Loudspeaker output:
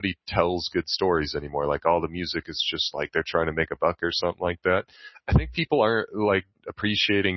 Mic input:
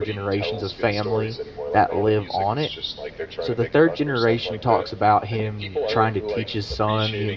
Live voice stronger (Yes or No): Yes